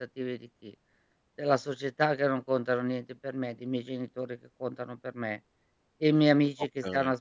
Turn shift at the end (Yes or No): No